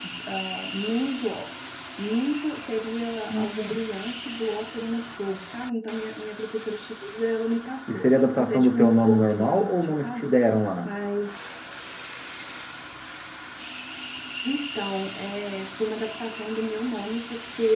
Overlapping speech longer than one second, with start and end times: 7.9-10.3

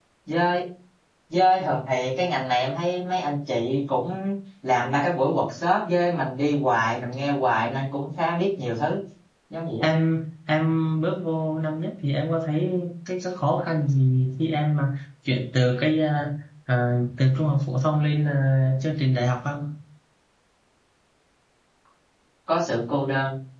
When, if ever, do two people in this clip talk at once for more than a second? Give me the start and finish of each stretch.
none

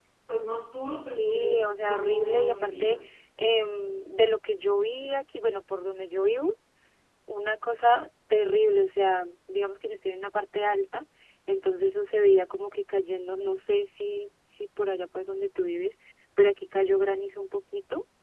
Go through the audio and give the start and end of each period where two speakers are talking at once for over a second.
1.2-3.0

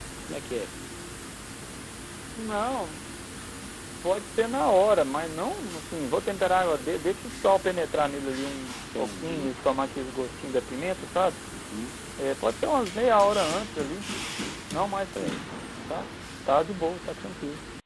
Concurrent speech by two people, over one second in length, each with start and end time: none

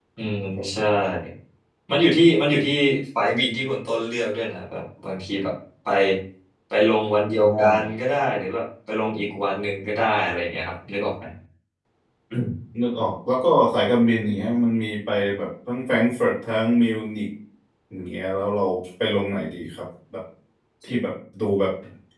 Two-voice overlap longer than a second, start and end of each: none

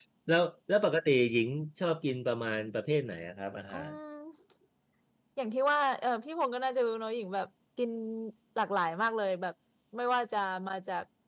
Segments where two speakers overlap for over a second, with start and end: none

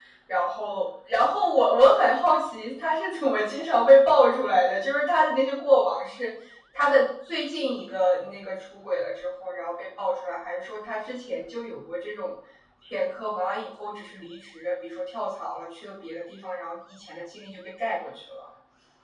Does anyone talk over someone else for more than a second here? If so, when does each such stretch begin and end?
none

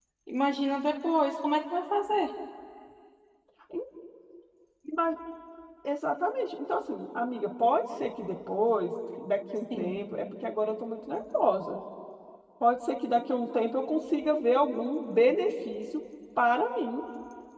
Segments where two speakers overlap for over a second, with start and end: none

